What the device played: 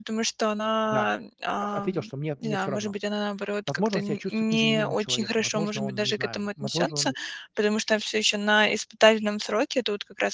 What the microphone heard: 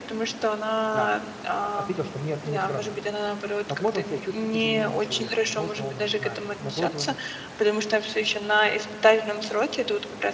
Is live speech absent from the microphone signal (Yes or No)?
Yes